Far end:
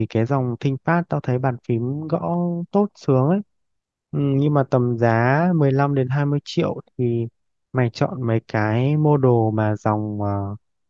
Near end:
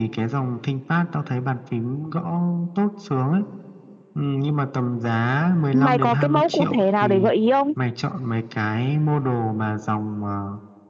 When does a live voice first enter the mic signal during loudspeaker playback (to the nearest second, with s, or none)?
6 s